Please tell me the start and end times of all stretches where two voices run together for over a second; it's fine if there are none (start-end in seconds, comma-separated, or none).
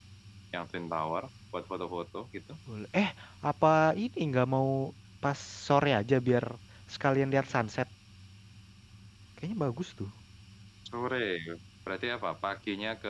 none